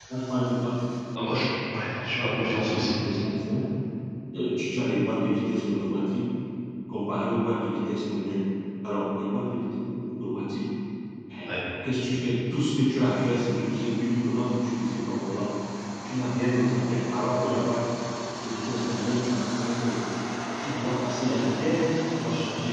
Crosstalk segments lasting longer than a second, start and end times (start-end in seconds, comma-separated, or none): 1.9-3.3